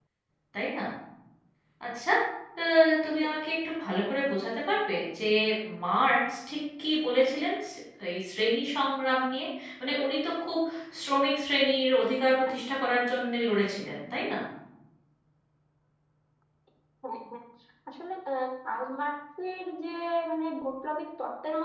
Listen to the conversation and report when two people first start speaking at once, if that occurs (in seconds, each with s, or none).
none